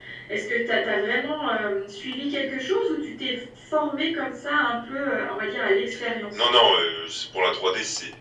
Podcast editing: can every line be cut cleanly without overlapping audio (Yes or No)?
Yes